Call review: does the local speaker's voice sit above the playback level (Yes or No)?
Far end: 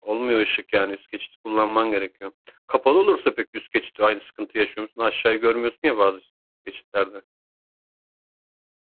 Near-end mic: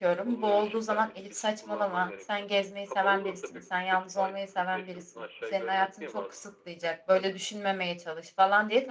Yes